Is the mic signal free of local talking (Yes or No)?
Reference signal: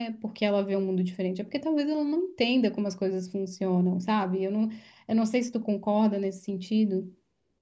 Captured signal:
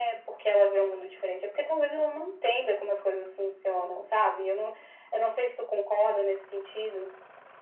Yes